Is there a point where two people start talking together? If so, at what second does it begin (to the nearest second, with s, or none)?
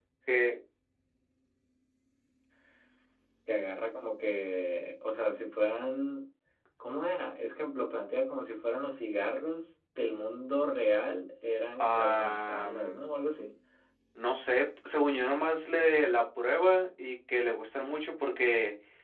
12 s